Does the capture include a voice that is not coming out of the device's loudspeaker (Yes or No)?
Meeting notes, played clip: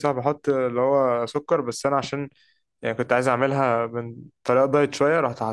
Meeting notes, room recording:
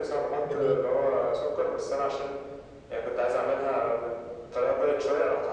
Yes